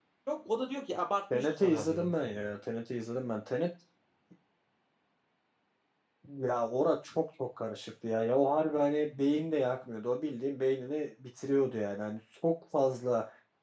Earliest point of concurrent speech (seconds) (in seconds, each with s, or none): 1.3 s